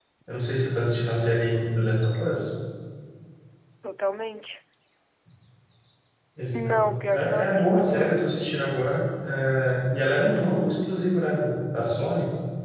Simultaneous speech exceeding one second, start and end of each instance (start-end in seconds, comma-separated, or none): 6.5-7.9